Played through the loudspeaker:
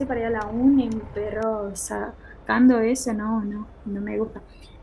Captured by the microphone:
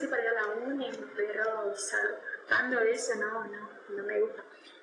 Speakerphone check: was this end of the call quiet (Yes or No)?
Yes